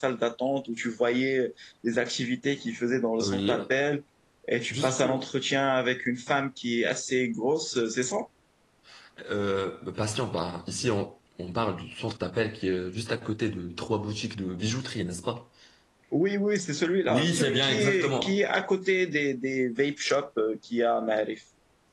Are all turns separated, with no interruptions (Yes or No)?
No